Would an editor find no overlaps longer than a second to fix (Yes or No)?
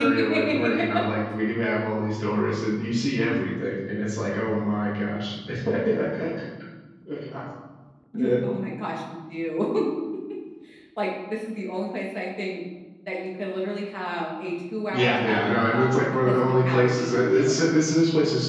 No